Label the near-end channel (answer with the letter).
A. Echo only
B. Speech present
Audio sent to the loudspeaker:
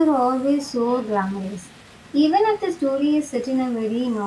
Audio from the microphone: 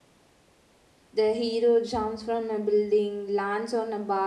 B